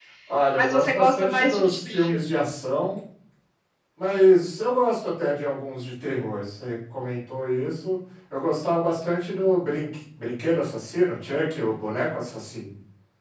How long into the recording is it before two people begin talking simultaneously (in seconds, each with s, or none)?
0.6 s